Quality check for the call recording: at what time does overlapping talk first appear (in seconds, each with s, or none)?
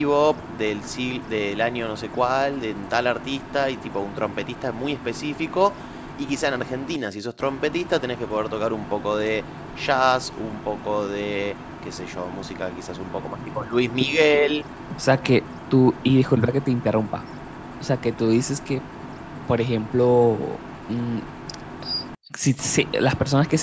none